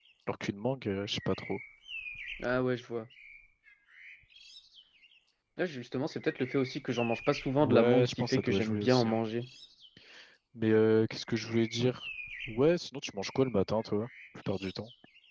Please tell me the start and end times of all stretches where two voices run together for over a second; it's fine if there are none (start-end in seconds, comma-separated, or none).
7.6-9.2